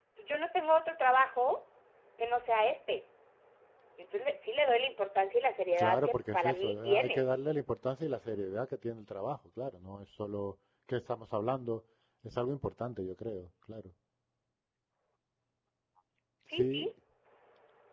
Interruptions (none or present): present